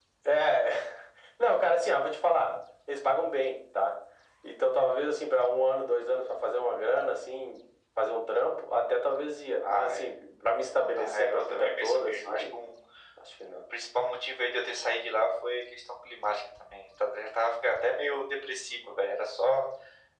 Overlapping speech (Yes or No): Yes